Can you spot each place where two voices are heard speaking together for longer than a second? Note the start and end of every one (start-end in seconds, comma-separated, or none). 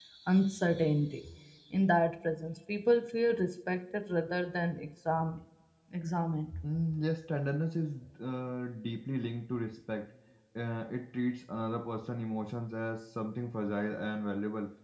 none